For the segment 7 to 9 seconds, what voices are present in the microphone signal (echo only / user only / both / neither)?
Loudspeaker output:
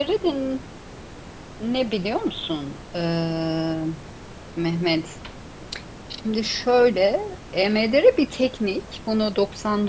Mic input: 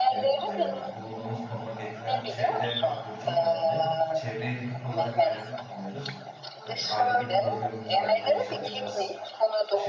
both